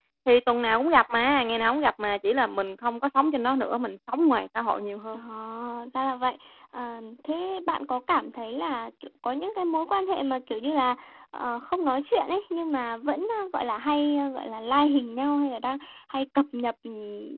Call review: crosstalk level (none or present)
none